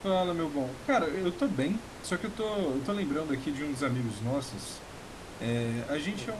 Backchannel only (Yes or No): Yes